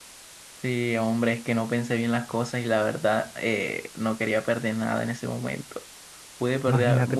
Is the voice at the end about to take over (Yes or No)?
Yes